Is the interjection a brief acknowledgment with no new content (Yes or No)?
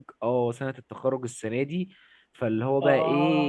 Yes